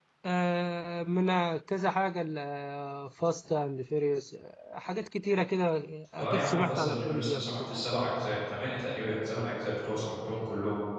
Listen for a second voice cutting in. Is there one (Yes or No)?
Yes